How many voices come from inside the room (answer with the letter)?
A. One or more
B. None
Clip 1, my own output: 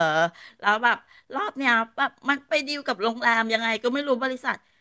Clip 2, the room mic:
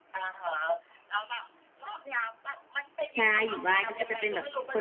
A